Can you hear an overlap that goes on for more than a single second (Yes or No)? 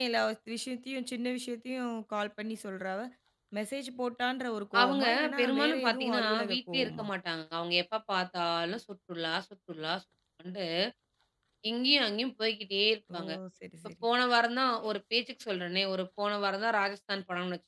Yes